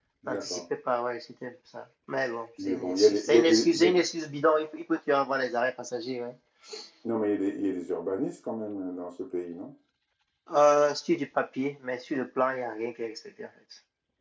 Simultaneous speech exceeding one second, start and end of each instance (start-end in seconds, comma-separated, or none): 2.6-4.0